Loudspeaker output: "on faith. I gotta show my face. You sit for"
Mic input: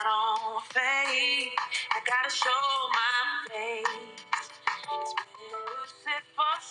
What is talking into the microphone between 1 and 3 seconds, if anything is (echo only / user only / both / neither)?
echo only